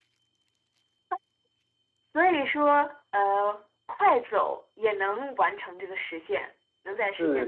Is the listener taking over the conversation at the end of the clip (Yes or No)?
Yes